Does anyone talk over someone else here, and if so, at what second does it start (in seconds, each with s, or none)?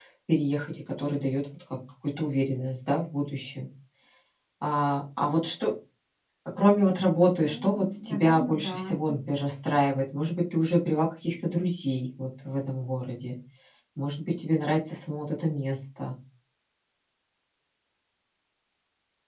7.4 s